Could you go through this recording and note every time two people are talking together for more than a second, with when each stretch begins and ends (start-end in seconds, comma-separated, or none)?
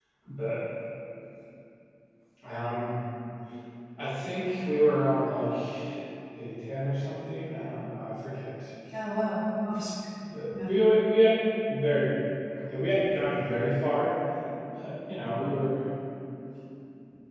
none